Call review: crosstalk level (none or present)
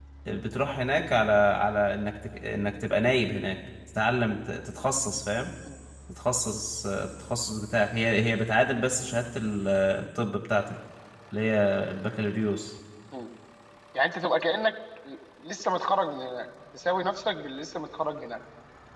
none